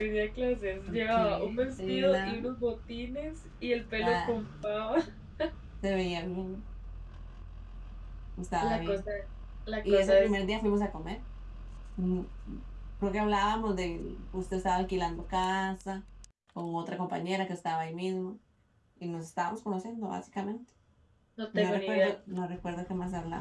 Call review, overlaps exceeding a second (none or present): present